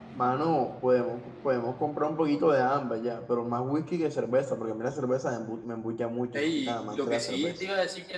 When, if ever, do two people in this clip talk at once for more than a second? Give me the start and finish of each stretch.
6.3-7.6

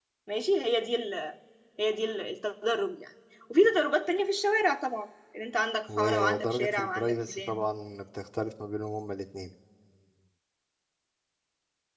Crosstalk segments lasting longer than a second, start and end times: 6.0-7.6

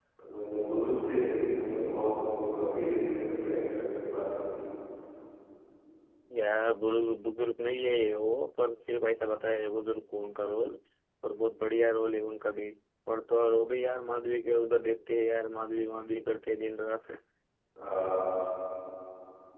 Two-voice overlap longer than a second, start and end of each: none

